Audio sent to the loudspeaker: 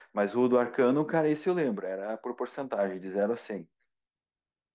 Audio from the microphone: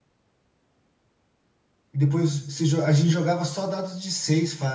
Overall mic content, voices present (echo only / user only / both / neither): user only